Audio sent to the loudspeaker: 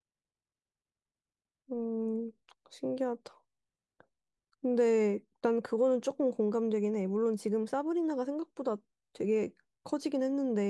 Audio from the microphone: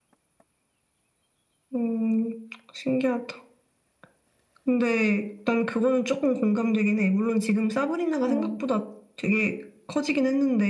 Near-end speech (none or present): present